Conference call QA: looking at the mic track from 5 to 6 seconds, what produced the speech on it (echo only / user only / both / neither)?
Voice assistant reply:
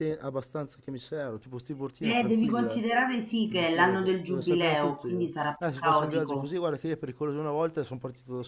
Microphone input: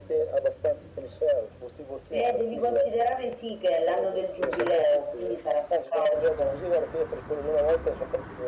echo only